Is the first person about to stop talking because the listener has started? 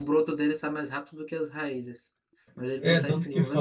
Yes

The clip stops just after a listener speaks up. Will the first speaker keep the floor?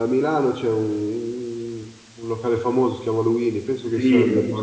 No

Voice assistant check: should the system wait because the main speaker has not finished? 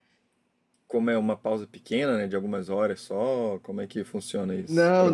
No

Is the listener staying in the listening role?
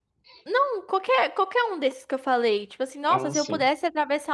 Yes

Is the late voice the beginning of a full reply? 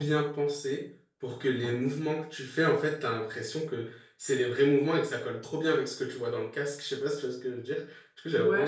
Yes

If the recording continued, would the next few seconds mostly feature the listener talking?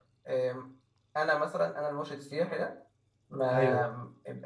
No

